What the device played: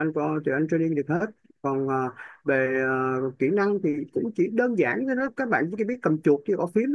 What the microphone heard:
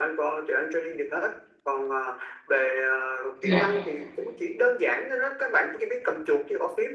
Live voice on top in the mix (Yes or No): Yes